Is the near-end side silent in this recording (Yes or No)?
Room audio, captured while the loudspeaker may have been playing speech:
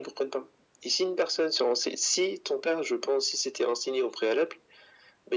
Yes